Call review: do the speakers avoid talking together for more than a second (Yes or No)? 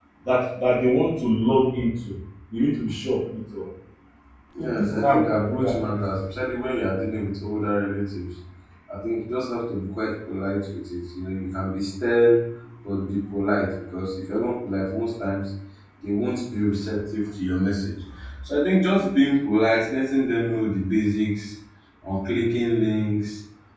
No